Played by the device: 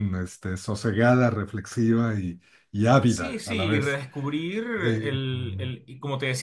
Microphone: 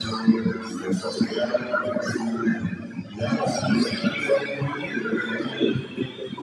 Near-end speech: none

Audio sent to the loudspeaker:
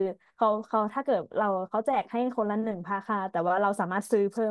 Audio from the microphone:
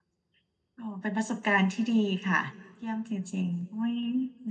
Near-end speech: present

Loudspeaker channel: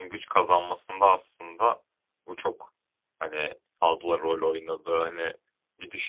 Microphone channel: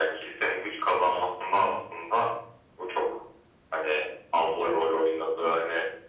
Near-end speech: none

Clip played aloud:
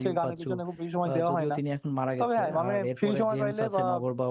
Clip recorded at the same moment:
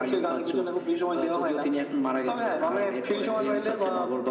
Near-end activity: none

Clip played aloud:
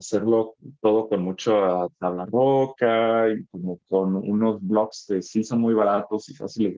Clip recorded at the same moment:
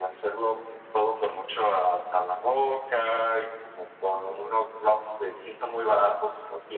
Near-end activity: none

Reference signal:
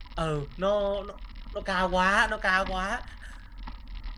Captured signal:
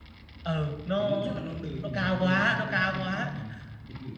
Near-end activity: present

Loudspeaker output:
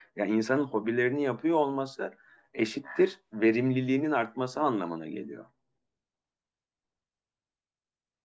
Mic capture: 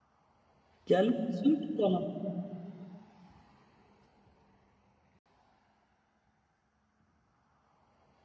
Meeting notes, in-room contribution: present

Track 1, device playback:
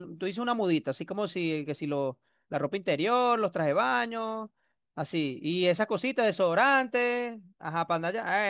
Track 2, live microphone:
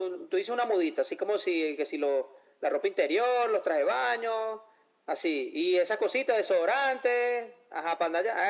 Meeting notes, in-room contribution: none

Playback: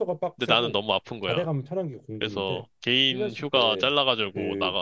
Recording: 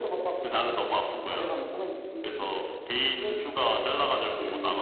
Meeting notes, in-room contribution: none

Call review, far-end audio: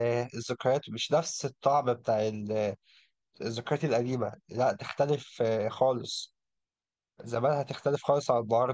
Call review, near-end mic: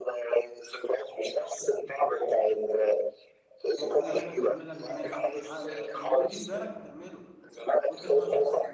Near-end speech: present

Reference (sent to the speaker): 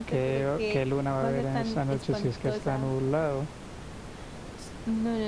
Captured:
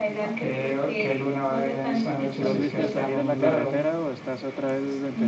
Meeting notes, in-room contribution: present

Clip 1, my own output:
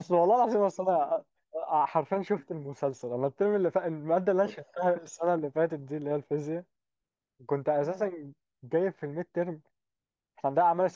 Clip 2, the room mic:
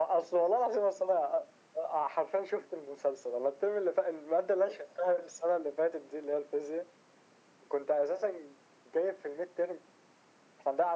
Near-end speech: none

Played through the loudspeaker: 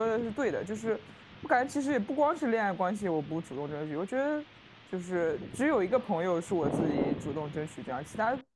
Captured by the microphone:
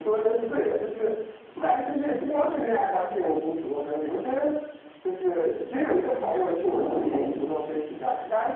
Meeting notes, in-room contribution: none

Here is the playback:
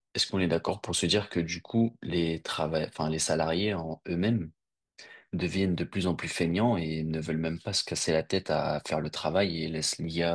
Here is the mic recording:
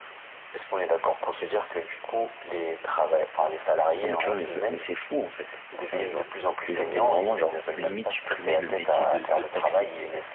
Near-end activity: present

